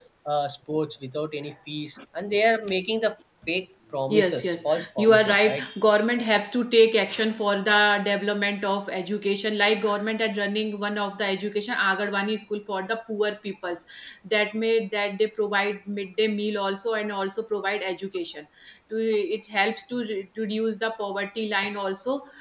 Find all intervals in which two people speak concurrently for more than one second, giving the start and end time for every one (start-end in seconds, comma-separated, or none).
4.1-5.6